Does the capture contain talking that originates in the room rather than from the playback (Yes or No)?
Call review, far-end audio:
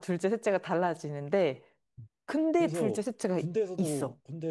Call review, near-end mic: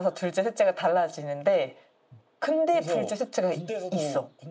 No